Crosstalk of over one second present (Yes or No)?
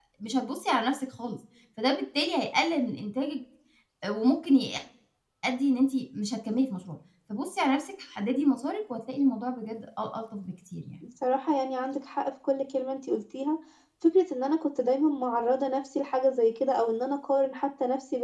No